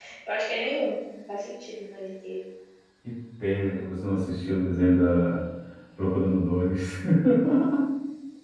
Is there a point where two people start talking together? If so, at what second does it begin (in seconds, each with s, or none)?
none